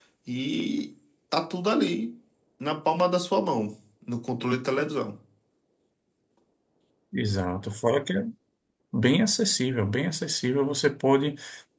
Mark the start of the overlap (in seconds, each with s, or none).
none